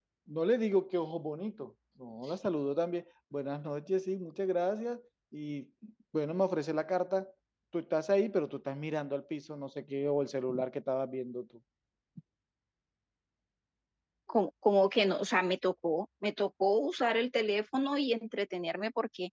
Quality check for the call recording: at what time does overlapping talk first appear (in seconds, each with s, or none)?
none